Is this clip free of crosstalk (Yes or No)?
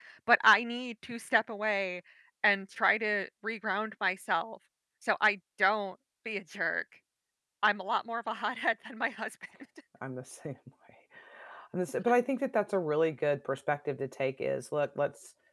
Yes